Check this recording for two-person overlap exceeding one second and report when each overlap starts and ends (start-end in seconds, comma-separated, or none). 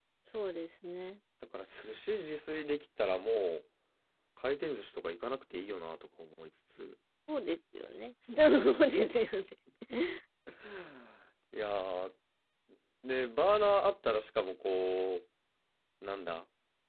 none